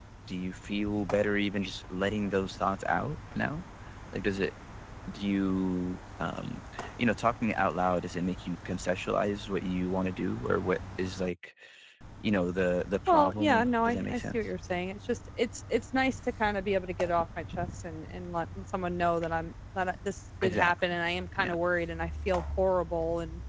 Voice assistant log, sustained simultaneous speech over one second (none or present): present